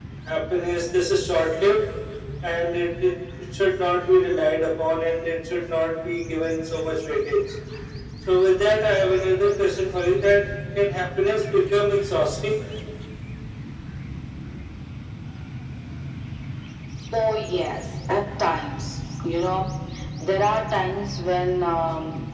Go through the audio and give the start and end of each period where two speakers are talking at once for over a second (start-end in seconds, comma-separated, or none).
none